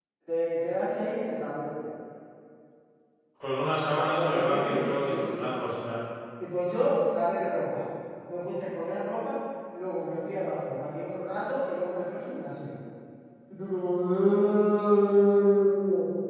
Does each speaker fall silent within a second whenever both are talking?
No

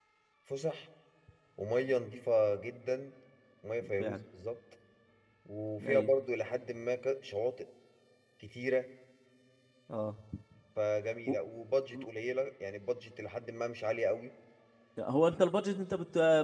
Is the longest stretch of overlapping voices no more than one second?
Yes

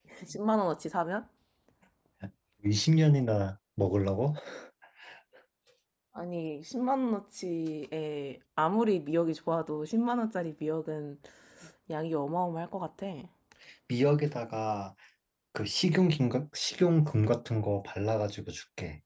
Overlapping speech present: No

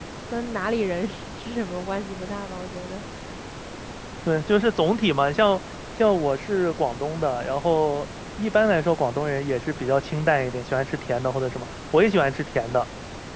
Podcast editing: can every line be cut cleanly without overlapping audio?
Yes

